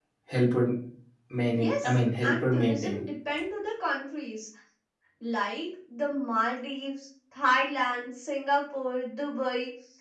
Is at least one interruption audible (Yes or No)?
Yes